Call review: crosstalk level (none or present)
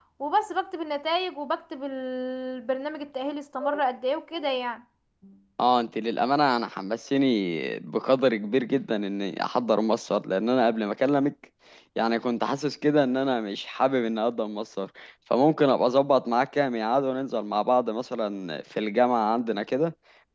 none